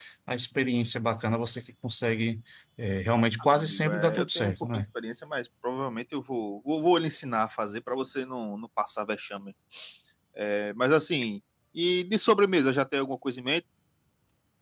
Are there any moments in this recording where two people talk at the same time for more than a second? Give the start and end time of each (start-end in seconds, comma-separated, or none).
3.6-4.8